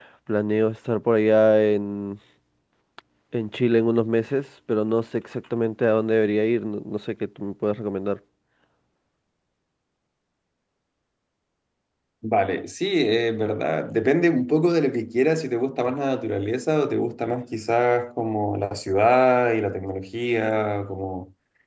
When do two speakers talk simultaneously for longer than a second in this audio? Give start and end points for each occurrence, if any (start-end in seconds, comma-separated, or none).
none